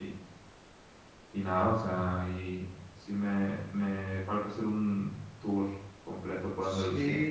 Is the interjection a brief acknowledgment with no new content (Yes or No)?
No